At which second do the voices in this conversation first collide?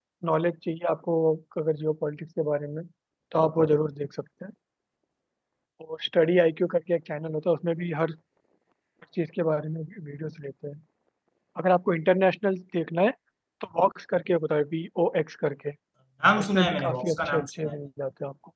16 s

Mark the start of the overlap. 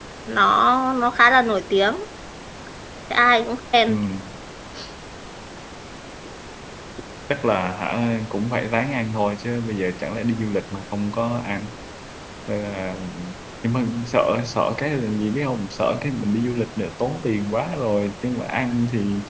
none

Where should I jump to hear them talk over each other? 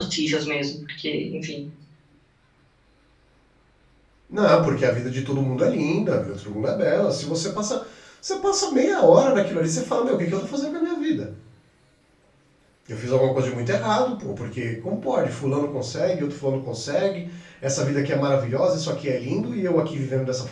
none

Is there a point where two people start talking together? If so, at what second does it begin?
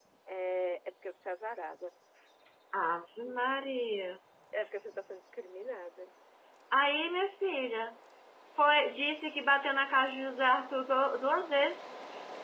none

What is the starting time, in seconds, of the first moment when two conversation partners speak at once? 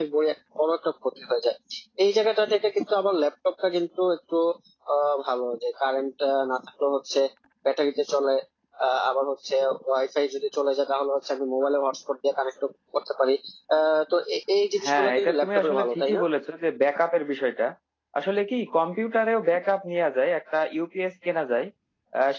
15 s

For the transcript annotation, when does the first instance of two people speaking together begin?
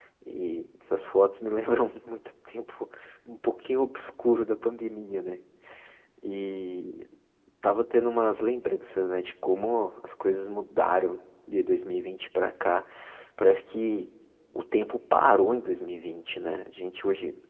none

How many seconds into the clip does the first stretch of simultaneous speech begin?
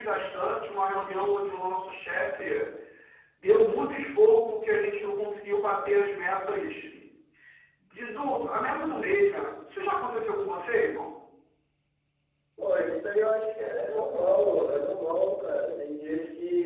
none

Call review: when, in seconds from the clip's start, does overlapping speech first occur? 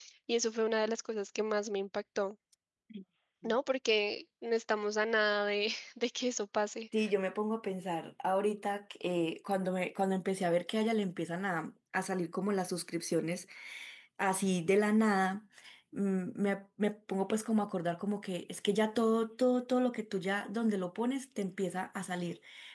none

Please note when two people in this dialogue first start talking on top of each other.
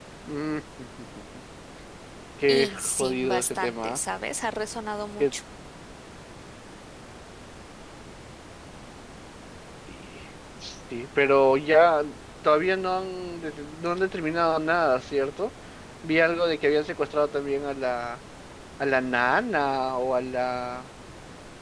2 s

